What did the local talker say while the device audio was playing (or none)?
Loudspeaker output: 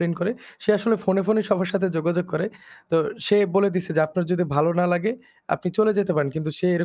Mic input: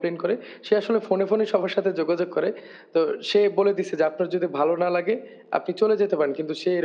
none